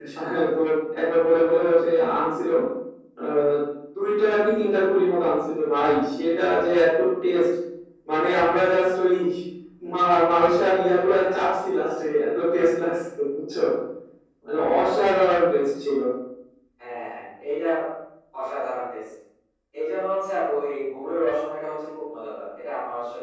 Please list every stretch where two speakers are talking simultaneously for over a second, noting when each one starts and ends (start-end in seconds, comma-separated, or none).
none